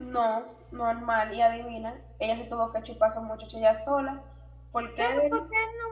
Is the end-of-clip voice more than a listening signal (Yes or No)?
Yes